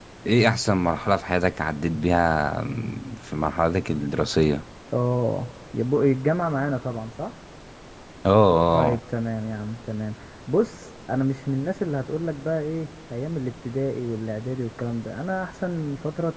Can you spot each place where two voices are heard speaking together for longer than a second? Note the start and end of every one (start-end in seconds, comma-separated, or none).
none